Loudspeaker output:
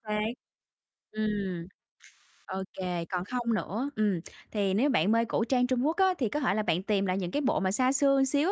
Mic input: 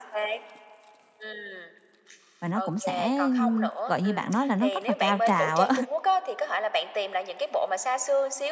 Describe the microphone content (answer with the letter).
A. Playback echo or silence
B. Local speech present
B